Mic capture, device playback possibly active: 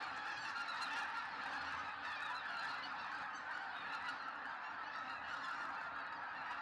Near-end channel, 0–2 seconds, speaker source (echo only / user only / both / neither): neither